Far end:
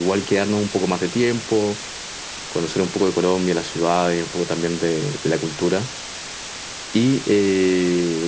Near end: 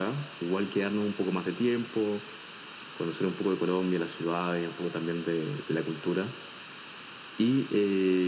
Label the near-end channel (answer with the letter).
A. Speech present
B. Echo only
B